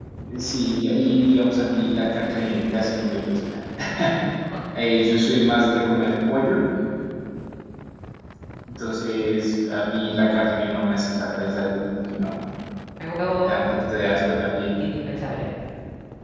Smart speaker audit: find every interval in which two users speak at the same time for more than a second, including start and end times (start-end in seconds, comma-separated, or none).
none